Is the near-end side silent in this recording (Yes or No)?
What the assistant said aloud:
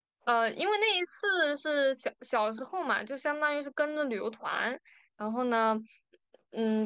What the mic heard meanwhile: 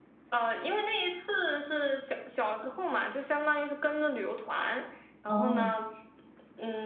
No